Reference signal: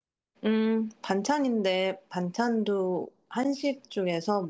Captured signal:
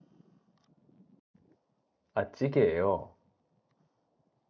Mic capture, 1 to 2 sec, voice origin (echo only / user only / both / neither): neither